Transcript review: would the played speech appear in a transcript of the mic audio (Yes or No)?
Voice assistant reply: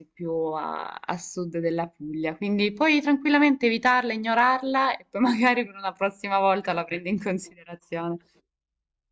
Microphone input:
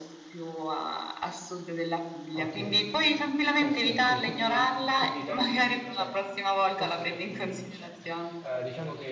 Yes